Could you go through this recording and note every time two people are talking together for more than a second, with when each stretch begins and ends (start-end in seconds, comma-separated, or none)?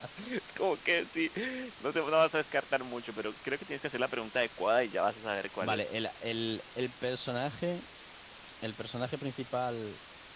none